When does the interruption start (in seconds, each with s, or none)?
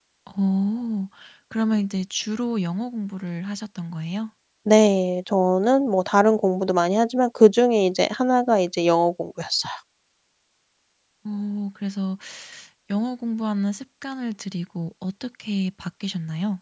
none